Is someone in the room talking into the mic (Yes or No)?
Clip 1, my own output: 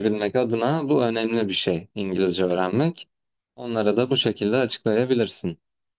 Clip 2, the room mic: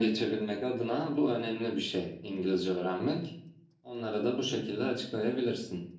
No